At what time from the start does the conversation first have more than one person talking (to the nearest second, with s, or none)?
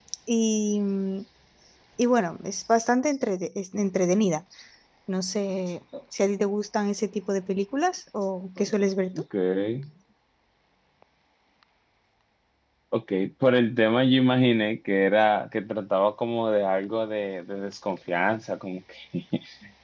none